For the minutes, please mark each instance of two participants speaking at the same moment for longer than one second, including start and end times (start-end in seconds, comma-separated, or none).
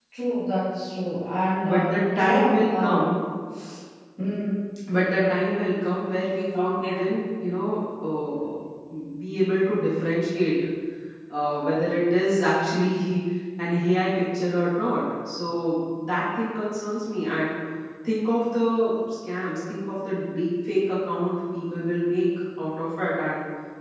1.6-3.0